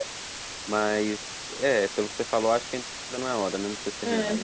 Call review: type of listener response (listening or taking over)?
taking over